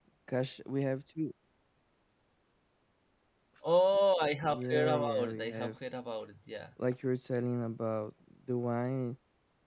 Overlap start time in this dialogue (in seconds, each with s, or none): 4.5 s